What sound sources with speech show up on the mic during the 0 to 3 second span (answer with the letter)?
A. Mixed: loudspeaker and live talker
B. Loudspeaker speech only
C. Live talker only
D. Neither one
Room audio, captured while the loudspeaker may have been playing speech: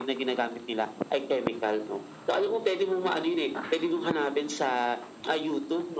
B